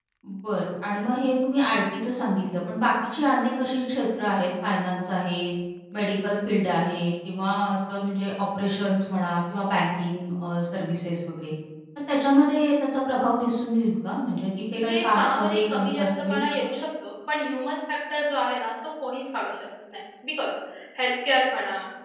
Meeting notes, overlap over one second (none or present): present